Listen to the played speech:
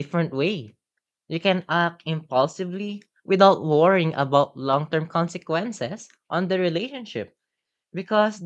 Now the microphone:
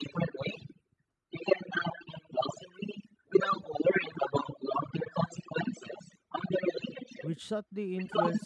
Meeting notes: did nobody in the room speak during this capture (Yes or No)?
No